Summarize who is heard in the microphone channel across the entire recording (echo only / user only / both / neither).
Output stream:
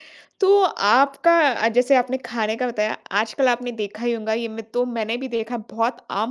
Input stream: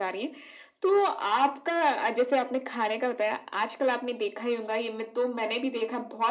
echo only